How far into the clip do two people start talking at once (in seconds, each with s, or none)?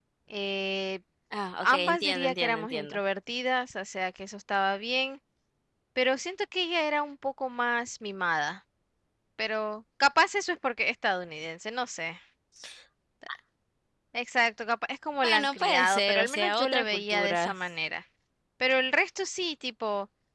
1.6 s